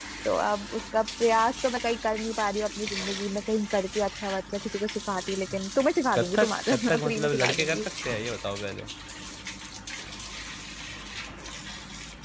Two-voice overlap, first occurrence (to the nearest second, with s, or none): 6 s